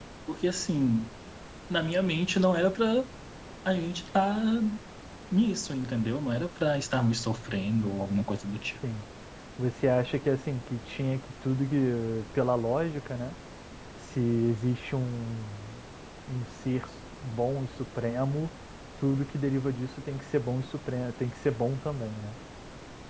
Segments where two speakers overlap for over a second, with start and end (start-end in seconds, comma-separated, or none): none